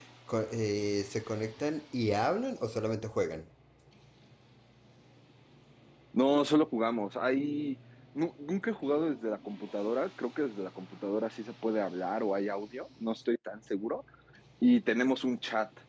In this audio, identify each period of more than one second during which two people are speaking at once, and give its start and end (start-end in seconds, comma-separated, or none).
none